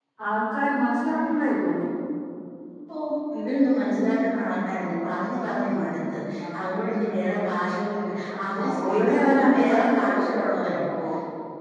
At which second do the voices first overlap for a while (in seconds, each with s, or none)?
8.5 s